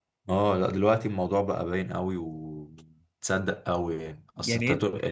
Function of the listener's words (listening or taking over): listening